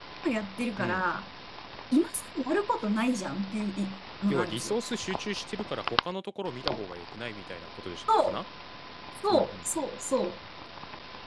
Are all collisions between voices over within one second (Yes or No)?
Yes